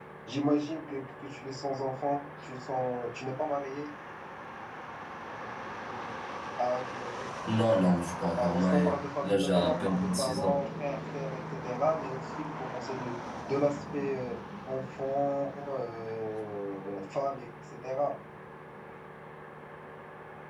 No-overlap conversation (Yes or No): No